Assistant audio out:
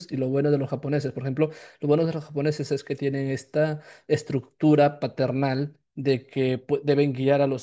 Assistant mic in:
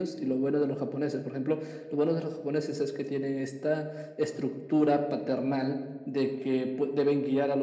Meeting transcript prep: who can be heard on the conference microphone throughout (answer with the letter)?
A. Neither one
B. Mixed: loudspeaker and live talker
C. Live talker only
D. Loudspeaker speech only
D